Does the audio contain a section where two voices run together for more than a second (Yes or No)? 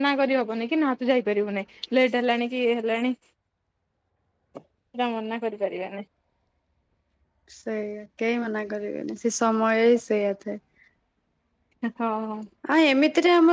No